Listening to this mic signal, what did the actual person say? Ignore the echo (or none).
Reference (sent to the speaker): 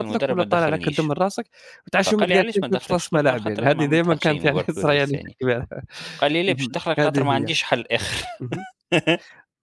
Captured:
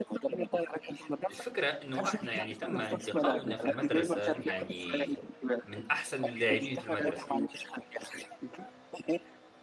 الفكرة إنه إحنا يعني تم انتقاؤنا في المدرسة يعني من أحسن اللاعبين في المدرسة،